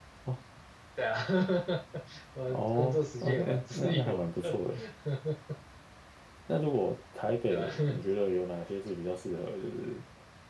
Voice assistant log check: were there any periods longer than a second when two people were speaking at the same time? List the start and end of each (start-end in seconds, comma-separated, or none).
2.5-4.5